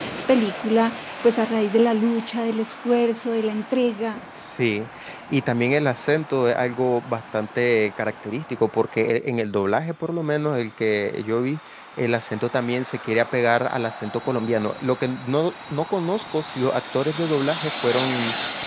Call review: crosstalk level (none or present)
none